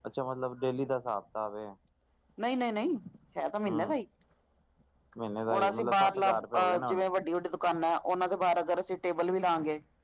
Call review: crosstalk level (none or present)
present